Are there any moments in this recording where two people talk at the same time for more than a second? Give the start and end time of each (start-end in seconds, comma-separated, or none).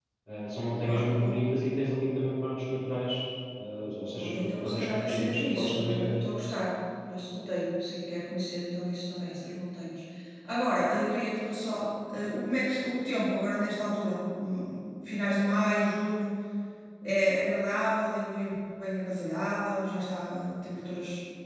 4.2-6.1